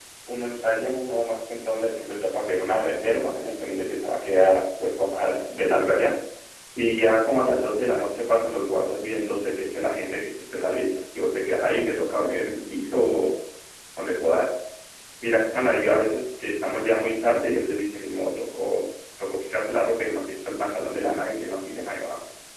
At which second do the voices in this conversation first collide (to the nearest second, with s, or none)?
none